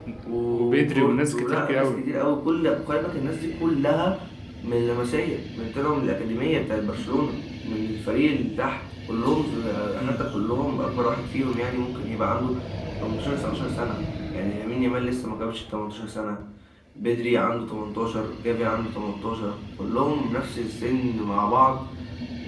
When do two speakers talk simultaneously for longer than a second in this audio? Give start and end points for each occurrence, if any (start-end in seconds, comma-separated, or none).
0.5-2.0